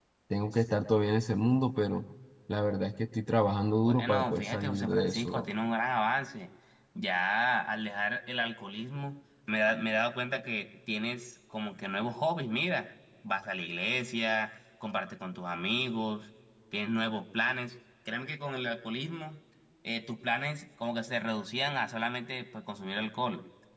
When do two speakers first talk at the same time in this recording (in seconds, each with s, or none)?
3.9 s